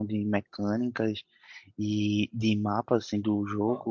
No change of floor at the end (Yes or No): Yes